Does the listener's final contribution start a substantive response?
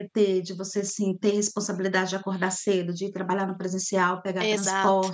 No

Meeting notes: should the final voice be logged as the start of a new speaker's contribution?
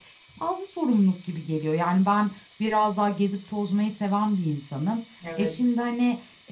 No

